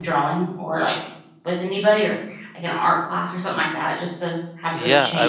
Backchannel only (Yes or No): No